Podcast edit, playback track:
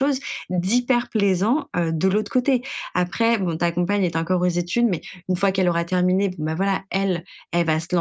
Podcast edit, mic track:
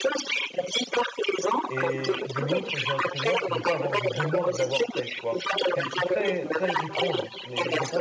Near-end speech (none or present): present